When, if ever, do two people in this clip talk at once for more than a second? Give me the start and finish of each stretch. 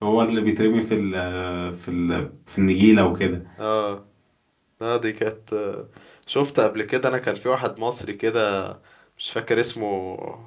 none

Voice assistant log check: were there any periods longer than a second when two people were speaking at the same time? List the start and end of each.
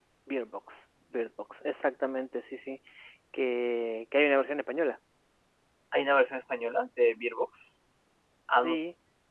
none

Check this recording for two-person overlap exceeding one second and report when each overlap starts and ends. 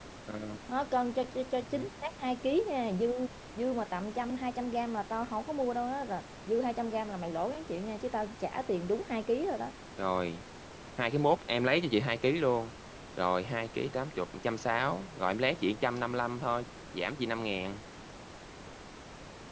none

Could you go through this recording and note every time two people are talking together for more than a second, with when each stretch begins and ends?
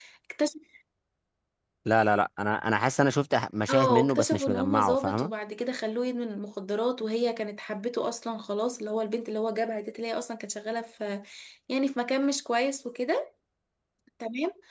3.7-5.3

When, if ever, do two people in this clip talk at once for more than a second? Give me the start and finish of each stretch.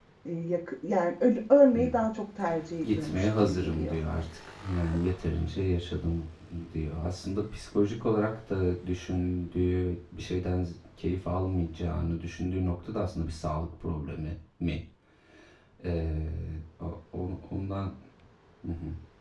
2.8-4.0

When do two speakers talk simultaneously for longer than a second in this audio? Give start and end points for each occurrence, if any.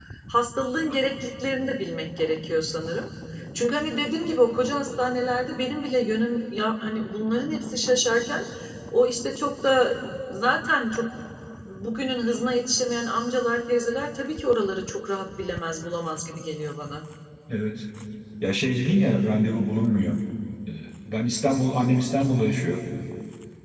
none

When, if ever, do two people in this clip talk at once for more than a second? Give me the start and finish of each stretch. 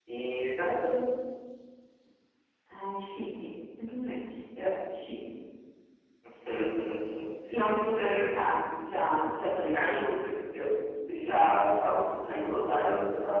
none

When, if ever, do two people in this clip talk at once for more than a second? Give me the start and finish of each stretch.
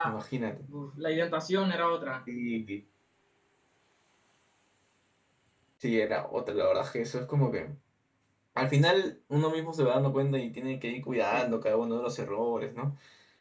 none

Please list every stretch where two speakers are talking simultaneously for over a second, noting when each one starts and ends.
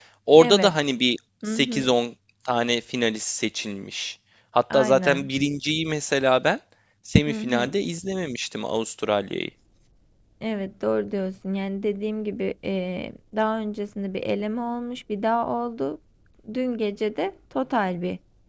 none

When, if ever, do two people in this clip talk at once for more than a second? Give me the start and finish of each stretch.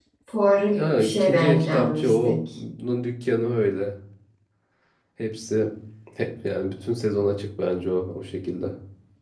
0.8-2.4

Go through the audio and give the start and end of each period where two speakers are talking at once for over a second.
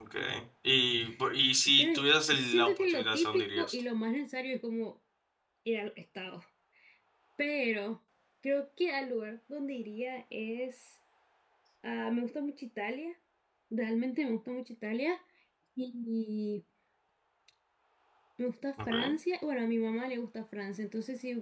2.4-3.8

